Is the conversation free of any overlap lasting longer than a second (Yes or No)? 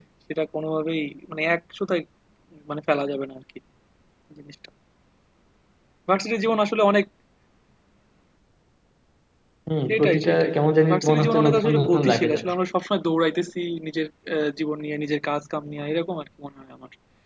No